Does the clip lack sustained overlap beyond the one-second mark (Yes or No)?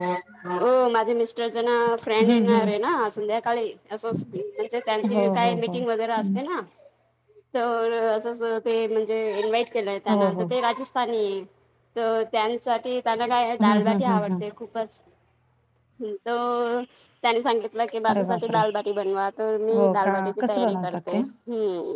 No